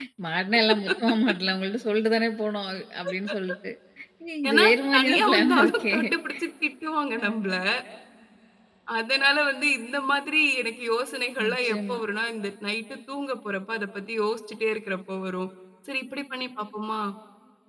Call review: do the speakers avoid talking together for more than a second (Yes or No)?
No